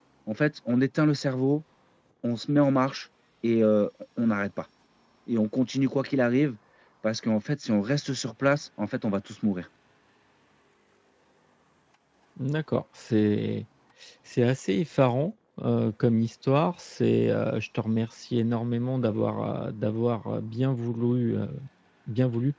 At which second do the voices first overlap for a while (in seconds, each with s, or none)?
none